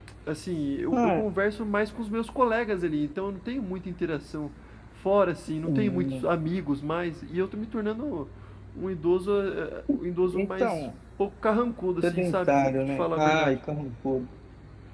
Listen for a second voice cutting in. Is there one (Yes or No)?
Yes